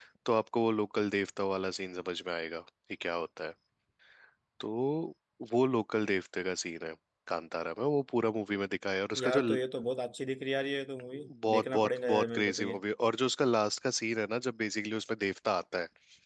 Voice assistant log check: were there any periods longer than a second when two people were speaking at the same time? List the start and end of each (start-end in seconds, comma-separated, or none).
11.2-12.7